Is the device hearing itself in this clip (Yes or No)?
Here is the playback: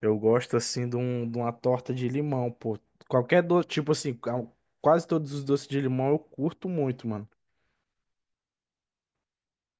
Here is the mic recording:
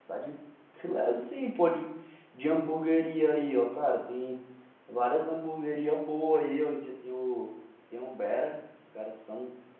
No